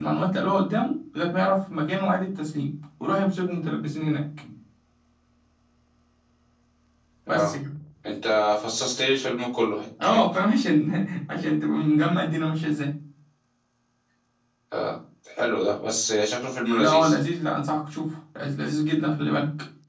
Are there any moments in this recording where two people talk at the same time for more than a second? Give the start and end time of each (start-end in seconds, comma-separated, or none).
none